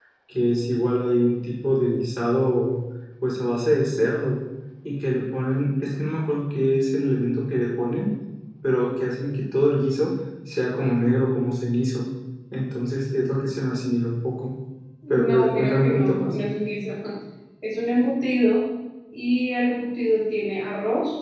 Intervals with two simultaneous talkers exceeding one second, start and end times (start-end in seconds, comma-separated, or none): 15.1-16.3